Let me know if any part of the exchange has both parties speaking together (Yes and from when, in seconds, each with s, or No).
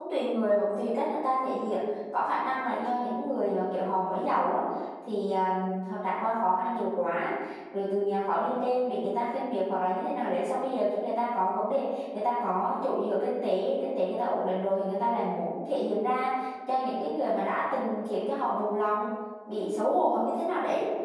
No